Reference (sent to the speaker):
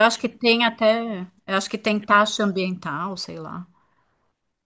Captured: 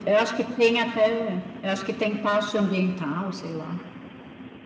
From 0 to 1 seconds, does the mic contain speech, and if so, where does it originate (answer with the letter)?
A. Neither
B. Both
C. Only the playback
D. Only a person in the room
C